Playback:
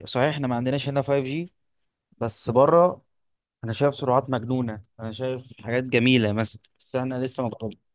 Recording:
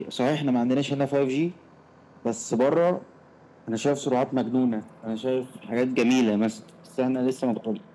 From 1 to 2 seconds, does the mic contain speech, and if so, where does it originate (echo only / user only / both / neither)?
echo only